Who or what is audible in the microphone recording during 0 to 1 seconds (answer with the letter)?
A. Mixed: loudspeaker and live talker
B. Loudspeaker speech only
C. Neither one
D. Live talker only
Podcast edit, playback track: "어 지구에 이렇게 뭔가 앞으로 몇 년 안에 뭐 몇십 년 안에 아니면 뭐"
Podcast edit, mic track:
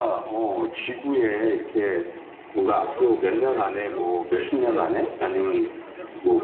B